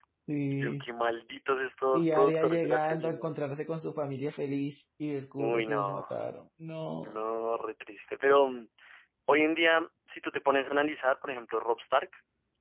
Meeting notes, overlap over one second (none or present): present